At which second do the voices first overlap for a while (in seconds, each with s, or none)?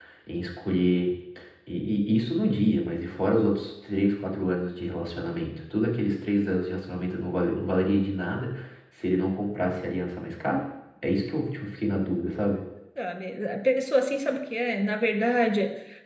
none